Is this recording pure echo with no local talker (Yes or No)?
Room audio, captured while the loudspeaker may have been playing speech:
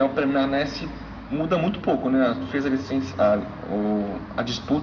Yes